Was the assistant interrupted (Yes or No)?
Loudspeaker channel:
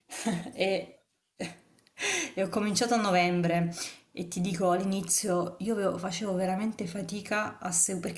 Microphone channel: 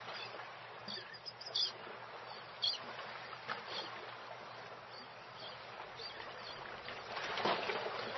No